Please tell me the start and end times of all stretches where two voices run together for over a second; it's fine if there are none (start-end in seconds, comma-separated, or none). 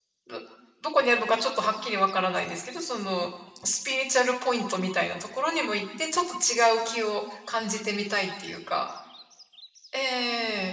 none